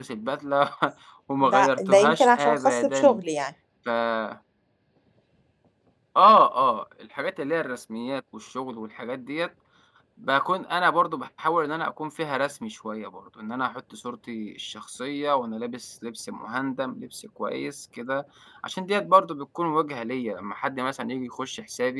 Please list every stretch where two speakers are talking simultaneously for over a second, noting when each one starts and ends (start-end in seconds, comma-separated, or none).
1.4-3.2